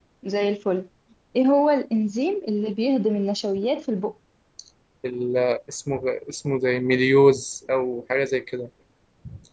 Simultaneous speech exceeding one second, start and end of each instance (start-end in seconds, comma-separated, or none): none